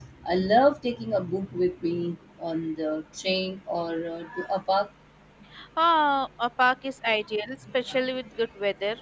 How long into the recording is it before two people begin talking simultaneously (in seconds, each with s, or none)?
none